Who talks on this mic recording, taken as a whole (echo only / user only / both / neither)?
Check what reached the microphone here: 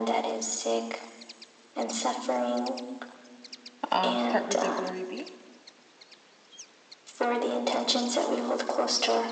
both